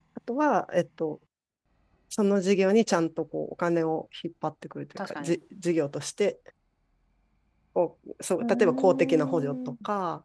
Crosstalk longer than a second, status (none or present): present